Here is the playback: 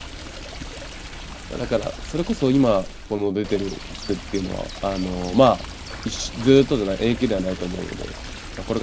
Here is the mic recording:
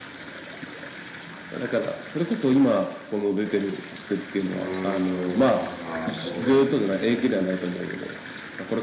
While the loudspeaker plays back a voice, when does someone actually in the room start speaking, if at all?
4.5 s

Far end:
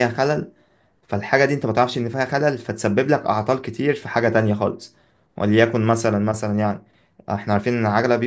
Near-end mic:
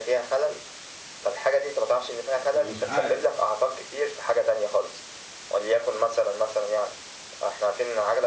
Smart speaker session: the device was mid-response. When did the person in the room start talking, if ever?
2.4 s

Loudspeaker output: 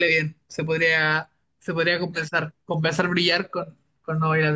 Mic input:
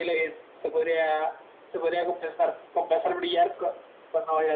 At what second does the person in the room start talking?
none

